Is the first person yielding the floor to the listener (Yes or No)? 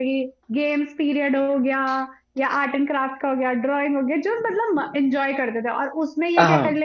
No